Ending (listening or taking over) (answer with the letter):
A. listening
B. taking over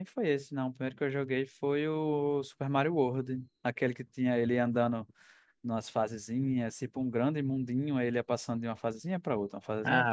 B